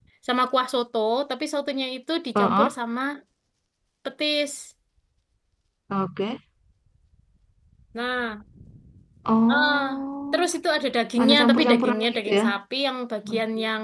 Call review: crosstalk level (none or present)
present